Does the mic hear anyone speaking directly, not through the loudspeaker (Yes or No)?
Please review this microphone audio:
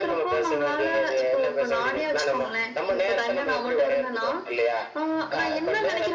No